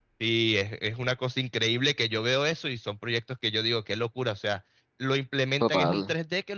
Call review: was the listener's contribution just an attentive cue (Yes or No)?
Yes